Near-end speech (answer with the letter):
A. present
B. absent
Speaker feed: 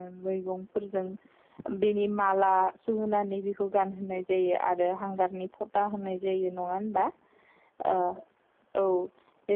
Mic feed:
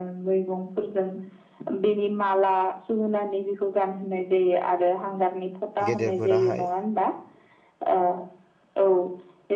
A